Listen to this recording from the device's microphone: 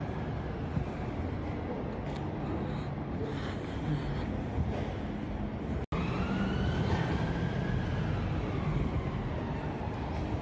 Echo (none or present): none